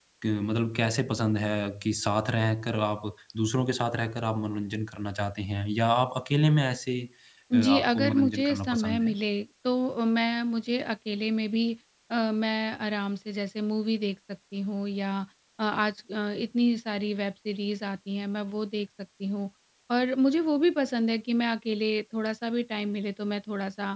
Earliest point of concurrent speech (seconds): 7.5 s

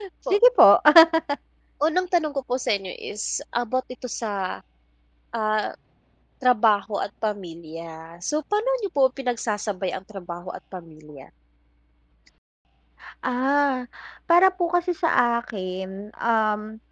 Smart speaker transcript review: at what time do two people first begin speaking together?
none

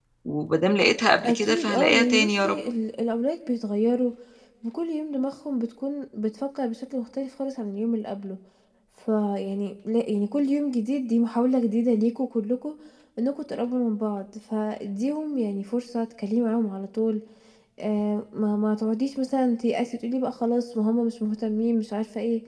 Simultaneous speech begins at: 1.2 s

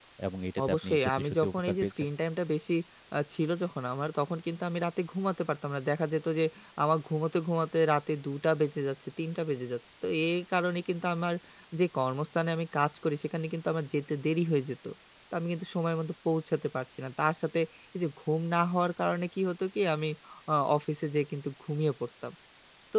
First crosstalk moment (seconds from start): 0.7 s

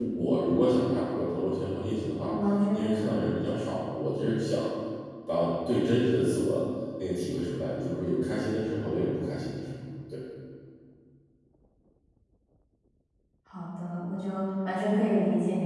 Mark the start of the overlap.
none

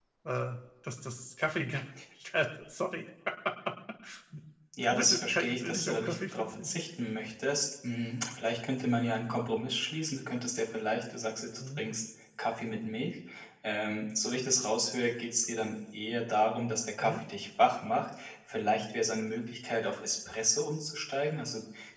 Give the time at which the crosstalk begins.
4.9 s

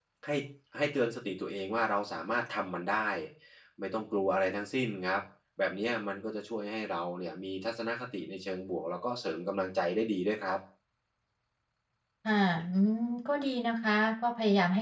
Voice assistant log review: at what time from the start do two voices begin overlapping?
none

